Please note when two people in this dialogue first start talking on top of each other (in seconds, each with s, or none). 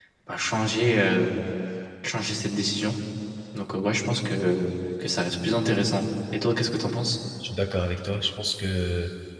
none